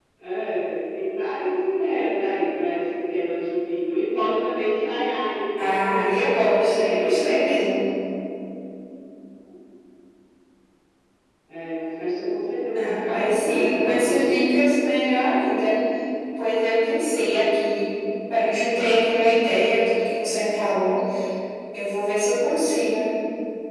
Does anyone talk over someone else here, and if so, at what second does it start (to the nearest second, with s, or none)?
6 s